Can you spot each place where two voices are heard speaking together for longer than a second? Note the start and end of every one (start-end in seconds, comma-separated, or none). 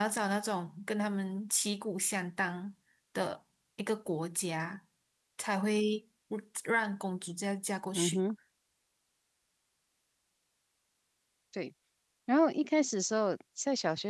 none